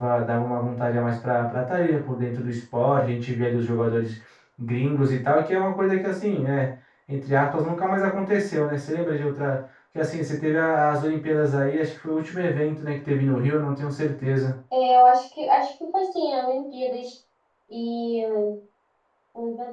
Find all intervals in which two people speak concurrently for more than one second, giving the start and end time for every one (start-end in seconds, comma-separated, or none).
none